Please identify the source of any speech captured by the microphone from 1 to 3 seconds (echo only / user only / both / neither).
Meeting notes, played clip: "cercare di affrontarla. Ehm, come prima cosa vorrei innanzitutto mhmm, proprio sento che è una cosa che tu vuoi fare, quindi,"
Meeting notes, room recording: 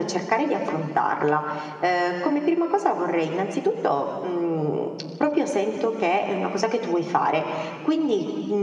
echo only